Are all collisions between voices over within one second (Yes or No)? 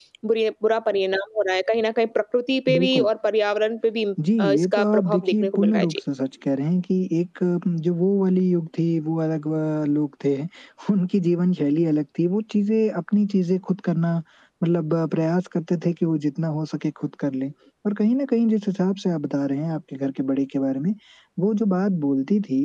No